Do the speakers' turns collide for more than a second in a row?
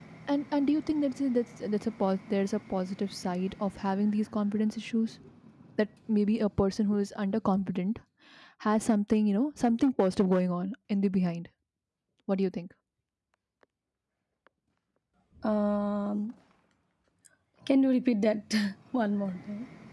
No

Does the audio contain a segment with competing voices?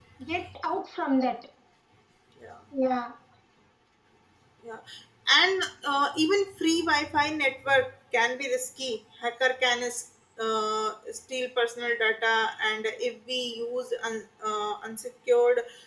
No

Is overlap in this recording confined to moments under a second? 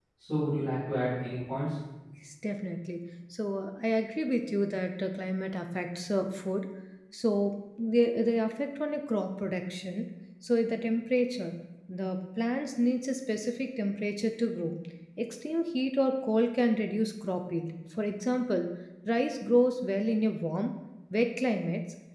Yes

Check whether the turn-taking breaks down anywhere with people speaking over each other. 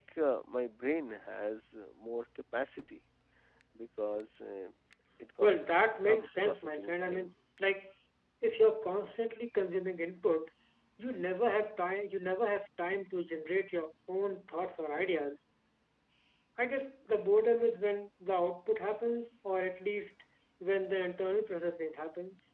Yes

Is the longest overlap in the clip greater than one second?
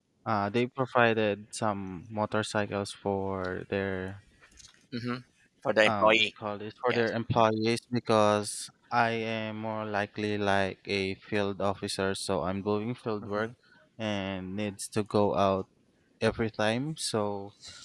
No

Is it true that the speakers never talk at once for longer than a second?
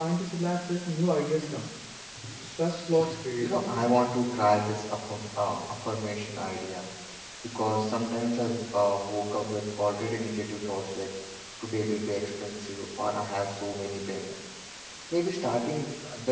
Yes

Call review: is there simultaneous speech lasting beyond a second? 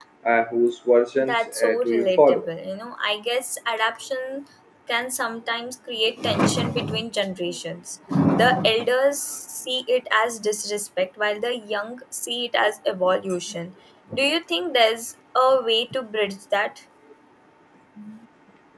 Yes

